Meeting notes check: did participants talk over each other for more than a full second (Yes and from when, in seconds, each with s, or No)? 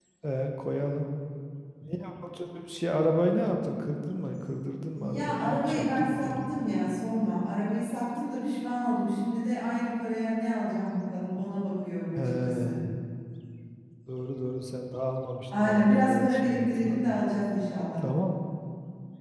Yes, from 5.0 s